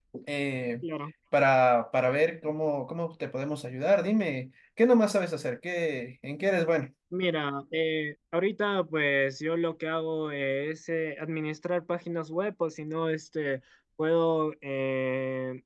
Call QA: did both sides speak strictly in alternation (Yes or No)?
Yes